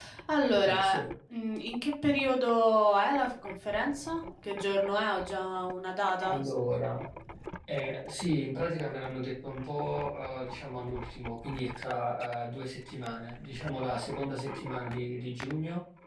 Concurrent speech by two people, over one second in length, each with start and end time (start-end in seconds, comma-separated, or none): none